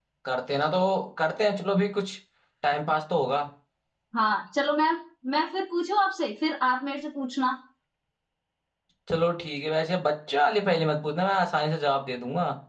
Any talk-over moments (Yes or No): No